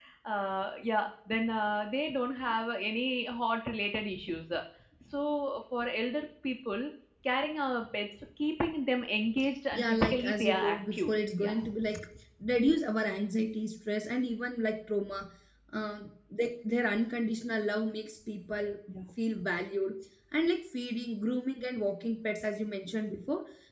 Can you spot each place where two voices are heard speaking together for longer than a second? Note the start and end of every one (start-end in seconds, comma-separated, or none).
9.7-11.6